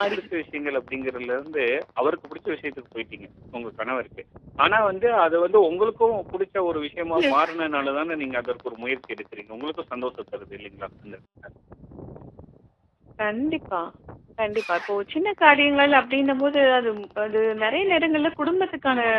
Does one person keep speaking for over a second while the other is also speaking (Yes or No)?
No